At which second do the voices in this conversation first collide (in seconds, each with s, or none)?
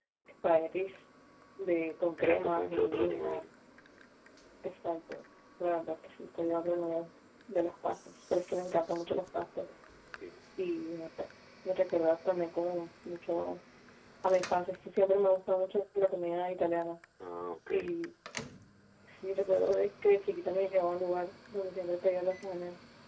2.2 s